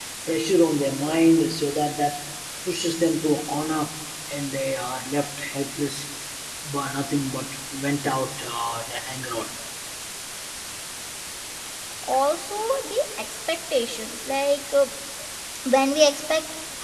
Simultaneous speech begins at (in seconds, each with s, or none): none